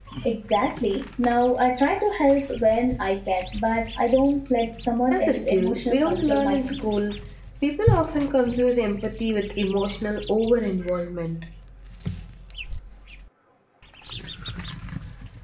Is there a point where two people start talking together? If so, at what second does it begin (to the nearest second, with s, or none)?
5 s